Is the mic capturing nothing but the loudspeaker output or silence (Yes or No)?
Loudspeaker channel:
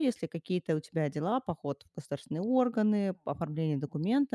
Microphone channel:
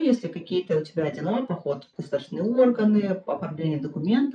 Yes